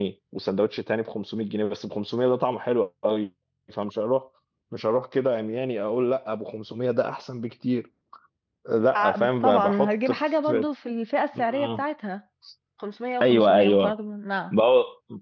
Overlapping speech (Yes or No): Yes